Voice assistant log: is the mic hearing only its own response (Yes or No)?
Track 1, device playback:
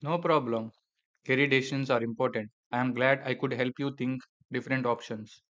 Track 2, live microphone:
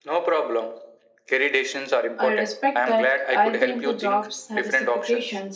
No